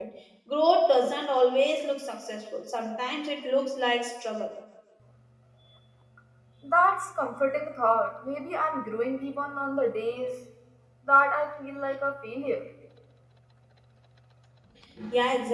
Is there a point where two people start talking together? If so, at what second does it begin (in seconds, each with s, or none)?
none